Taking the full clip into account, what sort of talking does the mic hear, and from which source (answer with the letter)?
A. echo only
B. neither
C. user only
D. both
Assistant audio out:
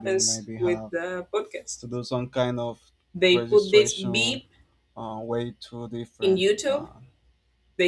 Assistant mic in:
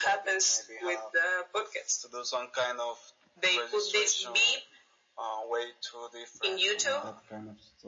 D